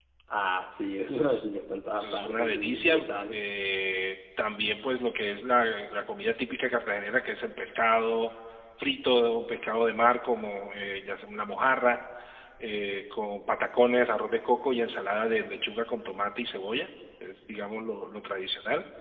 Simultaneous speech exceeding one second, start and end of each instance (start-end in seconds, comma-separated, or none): 1.9-3.4